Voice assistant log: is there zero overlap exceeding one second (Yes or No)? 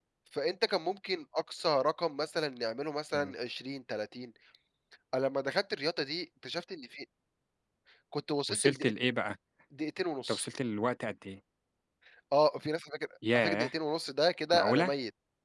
Yes